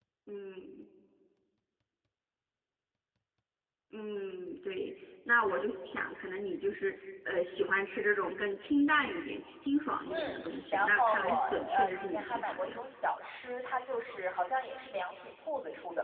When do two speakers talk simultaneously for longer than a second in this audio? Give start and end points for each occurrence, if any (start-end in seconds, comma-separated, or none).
10.1-12.8